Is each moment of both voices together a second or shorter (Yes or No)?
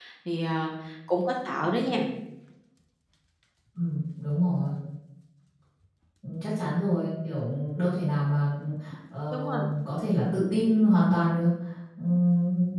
Yes